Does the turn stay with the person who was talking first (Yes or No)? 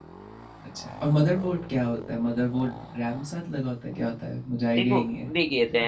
No